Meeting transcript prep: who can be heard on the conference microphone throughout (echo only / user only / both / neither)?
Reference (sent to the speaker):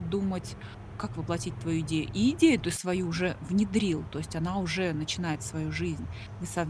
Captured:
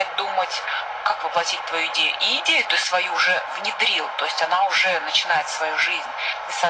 echo only